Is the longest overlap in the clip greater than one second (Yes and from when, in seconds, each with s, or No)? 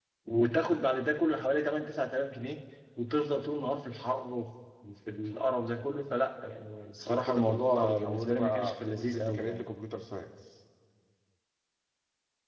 Yes, from 7.0 s